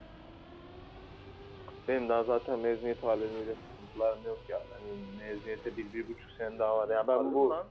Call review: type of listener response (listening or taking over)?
taking over